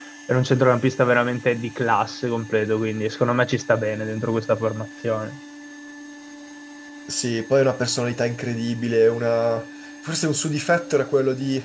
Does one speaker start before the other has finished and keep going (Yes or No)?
No